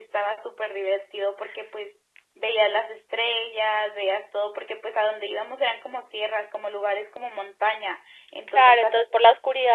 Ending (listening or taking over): taking over